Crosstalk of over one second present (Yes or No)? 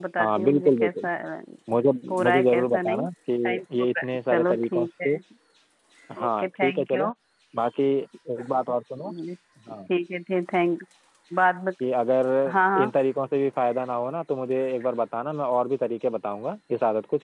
Yes